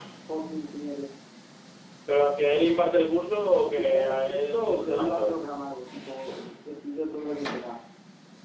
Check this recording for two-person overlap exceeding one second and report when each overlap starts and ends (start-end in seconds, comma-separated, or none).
3.6-5.3